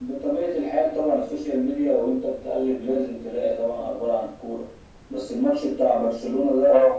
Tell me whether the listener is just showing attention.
Yes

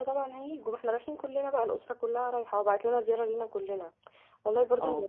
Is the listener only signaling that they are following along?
Yes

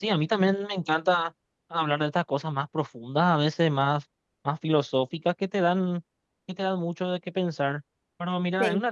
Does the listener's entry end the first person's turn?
No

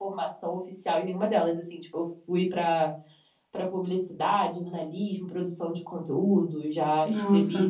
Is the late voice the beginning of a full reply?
No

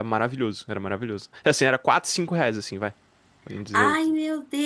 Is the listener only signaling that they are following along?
No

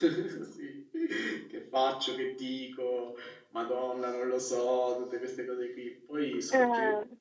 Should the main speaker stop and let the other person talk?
No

